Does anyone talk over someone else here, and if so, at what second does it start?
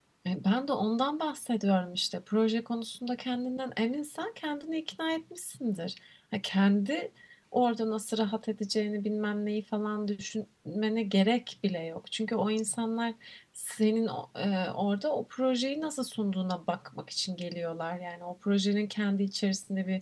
none

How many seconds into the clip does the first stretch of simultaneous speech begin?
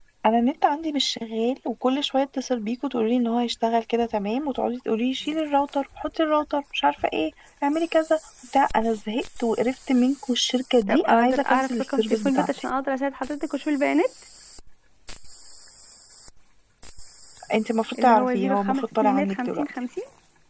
10.9 s

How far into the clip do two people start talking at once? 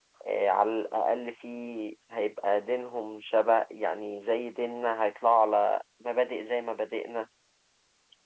none

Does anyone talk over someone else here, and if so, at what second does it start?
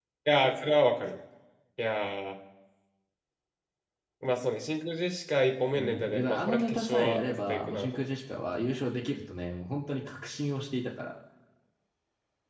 5.7 s

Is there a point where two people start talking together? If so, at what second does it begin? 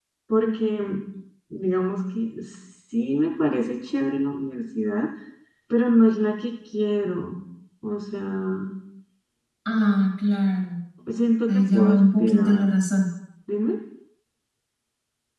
11.5 s

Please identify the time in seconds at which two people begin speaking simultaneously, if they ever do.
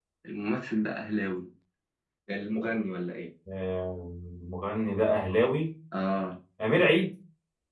none

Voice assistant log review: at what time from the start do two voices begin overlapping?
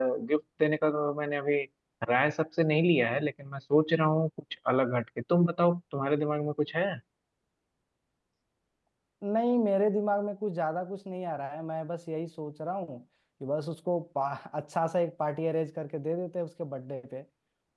none

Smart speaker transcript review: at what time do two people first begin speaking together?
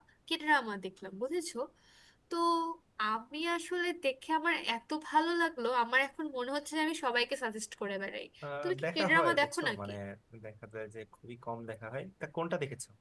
8.6 s

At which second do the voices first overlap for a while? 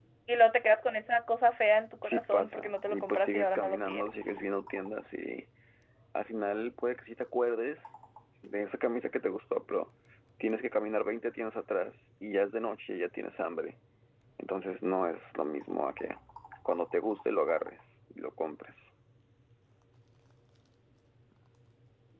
2.0 s

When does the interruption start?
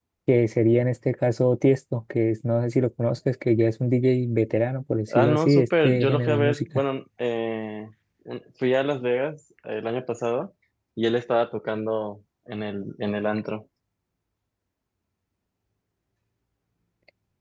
5.1 s

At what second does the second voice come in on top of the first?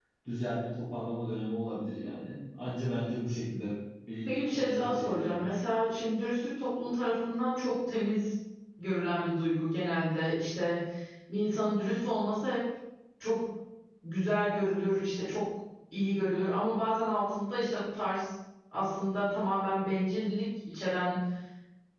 4.3 s

